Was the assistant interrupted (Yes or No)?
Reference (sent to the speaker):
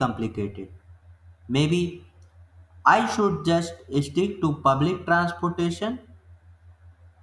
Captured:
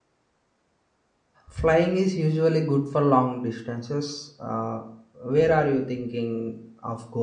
Yes